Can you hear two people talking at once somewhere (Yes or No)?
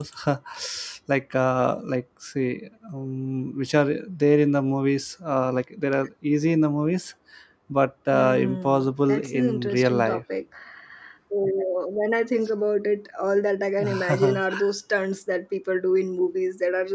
Yes